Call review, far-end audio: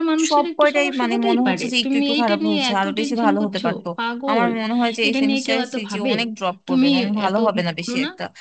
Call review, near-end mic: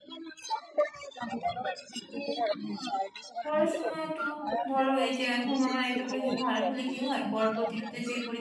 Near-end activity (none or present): present